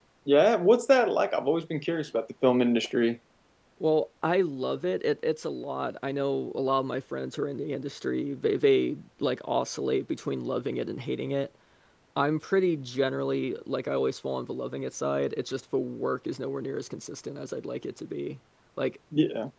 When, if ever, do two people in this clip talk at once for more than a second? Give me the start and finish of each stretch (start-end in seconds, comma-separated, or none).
none